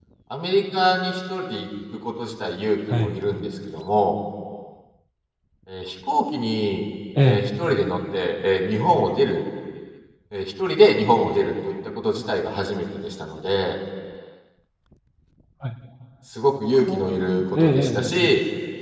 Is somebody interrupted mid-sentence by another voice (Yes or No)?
Yes